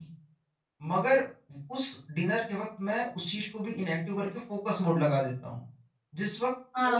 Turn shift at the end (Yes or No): Yes